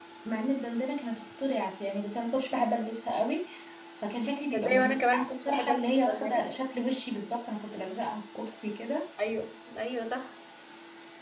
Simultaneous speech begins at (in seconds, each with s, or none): 4.5 s